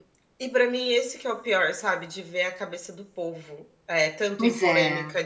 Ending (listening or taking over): listening